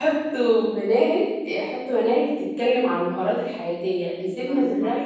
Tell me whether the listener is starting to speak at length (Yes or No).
No